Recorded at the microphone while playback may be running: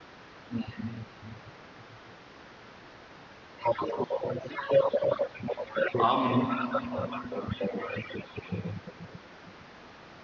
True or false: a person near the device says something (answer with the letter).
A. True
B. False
A